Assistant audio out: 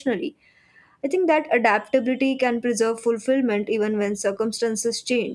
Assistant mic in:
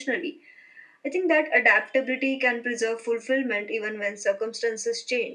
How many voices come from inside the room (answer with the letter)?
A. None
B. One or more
A